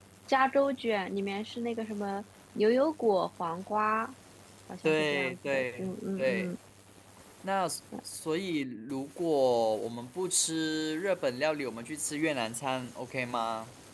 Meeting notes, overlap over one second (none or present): present